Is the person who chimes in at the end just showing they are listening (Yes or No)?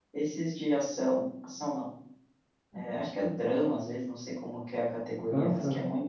Yes